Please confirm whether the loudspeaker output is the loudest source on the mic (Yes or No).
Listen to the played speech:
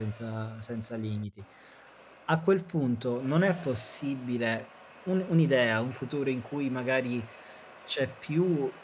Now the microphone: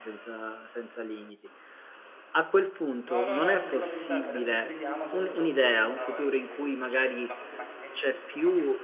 Yes